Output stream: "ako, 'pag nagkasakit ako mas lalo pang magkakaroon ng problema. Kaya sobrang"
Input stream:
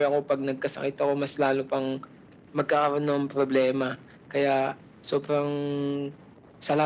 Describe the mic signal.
echo only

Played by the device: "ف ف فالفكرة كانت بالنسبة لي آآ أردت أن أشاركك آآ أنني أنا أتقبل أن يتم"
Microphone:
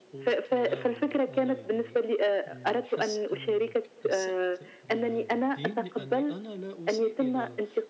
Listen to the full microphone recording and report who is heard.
both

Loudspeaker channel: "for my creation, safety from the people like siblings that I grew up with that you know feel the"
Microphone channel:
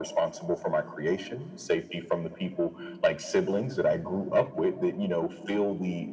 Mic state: echo only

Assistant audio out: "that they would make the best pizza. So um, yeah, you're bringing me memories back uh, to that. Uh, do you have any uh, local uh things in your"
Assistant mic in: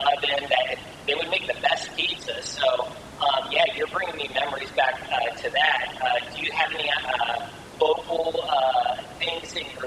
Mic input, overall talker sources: echo only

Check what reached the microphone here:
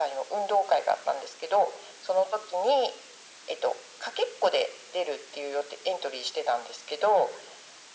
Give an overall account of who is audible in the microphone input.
echo only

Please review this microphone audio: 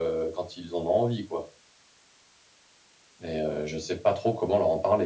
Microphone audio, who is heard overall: echo only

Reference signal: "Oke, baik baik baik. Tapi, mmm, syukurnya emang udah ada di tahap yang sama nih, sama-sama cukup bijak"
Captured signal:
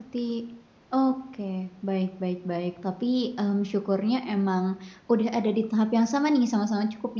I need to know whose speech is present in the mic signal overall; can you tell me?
echo only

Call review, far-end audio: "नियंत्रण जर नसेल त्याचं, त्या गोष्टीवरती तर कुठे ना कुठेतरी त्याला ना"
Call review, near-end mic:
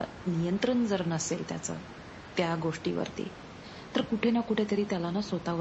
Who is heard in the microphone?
echo only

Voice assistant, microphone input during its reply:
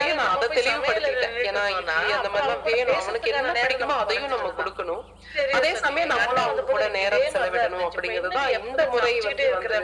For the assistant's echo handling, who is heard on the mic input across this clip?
echo only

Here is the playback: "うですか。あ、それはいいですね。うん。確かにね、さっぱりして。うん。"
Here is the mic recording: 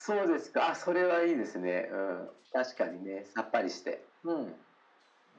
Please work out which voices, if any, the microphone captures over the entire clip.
echo only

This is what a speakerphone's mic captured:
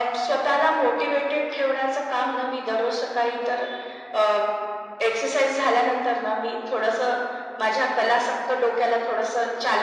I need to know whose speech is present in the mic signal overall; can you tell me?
echo only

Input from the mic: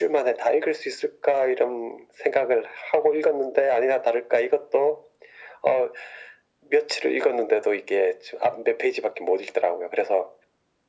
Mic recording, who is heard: echo only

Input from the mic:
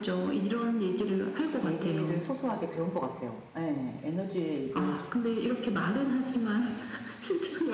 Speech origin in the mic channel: both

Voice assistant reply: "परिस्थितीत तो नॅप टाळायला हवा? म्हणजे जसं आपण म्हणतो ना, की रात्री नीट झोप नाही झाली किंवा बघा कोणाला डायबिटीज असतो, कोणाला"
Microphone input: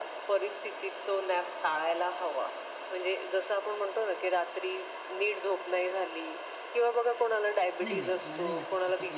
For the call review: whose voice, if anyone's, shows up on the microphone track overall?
both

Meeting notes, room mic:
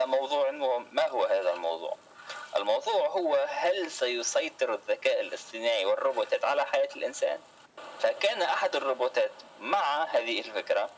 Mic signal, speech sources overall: echo only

